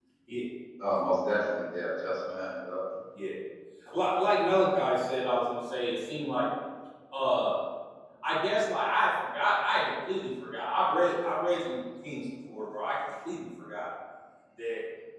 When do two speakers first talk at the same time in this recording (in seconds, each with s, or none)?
none